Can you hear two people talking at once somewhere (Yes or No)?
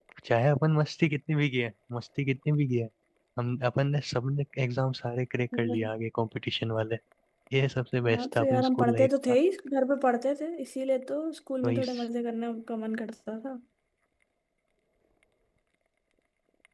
Yes